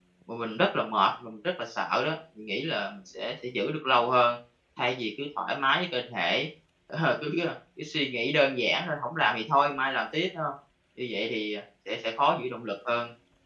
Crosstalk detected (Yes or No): No